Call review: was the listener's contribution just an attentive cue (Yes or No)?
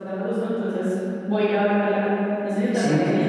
Yes